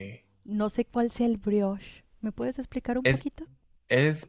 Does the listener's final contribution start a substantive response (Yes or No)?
Yes